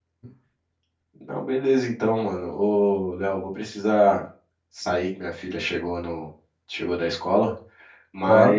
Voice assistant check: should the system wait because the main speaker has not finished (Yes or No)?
Yes